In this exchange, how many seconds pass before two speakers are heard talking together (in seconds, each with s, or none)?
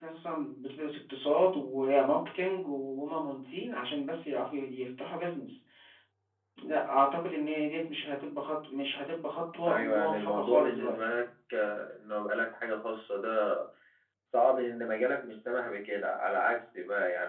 9.7 s